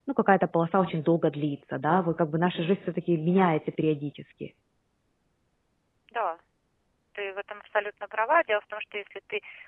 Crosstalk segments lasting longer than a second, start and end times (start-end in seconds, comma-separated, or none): none